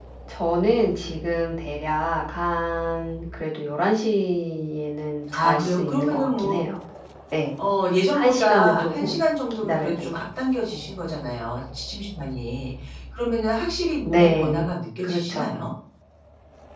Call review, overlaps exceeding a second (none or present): present